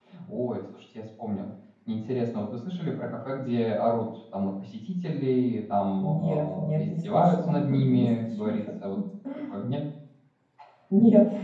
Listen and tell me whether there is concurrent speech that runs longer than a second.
Yes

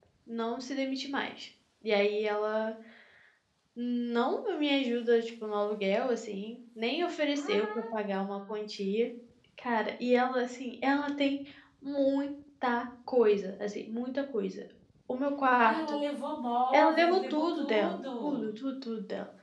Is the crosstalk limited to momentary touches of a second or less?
No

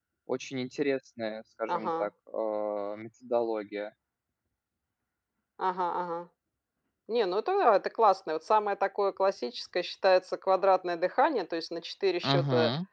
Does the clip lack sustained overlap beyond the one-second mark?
Yes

